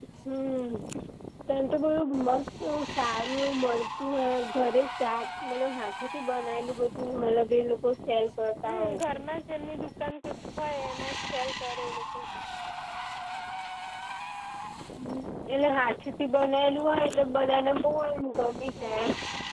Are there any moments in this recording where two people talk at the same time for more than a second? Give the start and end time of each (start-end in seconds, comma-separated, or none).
none